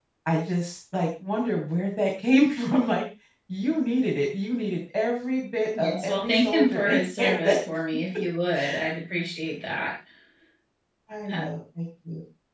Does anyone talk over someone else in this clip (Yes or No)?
Yes